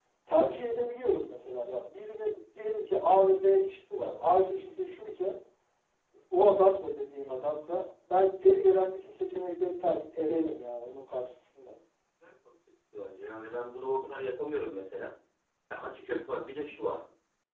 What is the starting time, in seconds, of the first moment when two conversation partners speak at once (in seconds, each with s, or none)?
none